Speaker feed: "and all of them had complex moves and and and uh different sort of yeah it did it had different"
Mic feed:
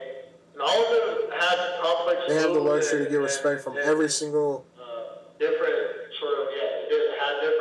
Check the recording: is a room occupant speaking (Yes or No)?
Yes